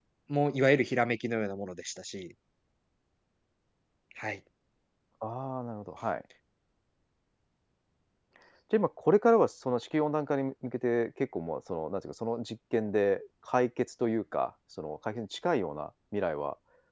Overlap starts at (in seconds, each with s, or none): none